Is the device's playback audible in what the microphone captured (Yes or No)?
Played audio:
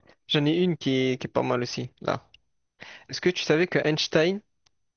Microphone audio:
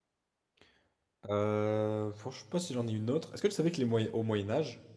No